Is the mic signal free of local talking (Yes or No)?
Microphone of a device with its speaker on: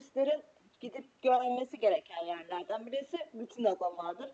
Yes